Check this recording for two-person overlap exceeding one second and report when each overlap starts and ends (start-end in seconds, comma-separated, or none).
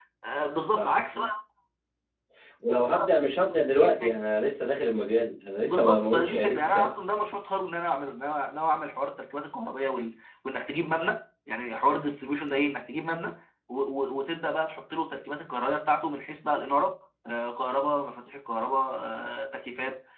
5.6-6.9